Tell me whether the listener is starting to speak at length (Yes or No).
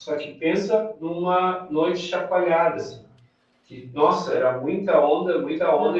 No